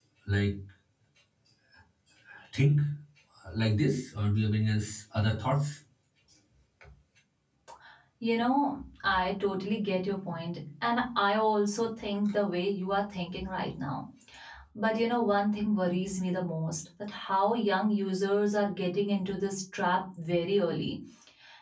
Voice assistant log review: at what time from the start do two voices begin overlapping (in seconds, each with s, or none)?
none